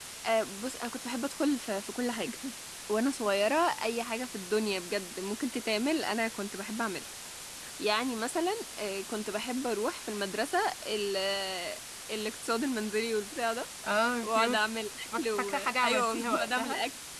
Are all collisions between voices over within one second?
No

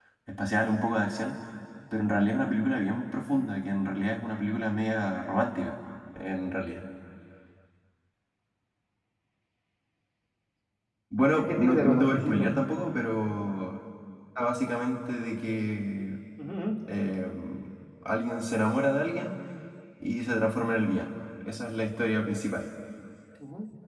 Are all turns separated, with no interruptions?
No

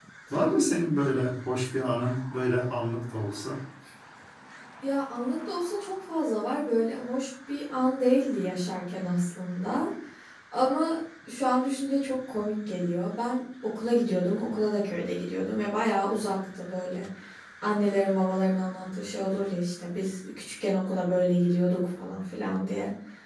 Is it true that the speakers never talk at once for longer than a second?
Yes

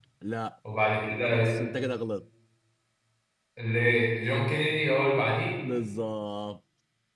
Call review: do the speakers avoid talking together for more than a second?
Yes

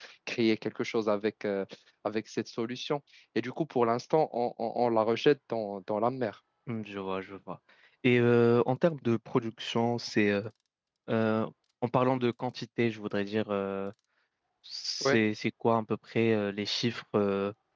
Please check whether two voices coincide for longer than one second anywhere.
No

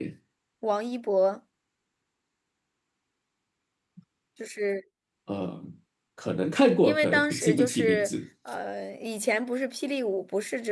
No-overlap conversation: No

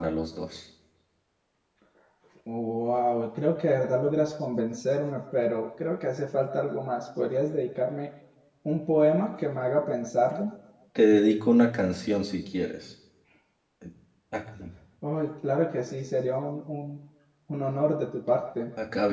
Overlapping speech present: No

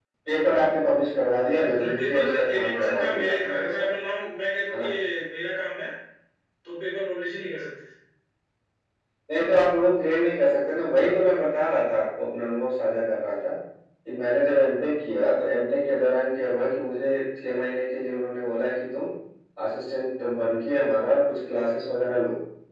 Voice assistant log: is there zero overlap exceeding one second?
No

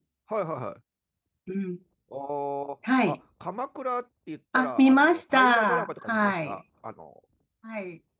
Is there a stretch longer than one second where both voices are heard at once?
Yes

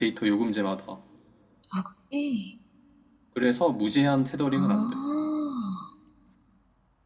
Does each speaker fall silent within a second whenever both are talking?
Yes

